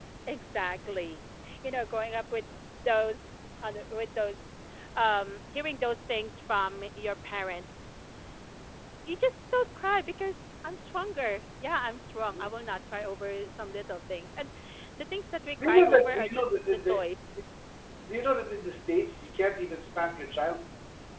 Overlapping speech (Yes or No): Yes